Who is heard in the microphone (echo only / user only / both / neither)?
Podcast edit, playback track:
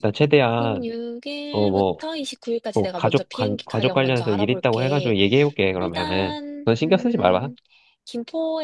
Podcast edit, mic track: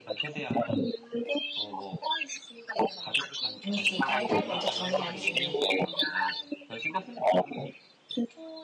both